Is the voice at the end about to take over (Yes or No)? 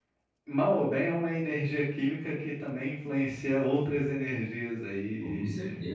Yes